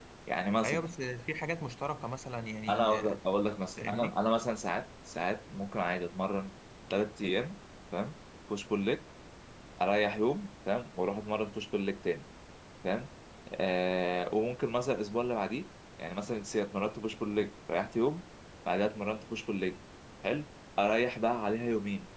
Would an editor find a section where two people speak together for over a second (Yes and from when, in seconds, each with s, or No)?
No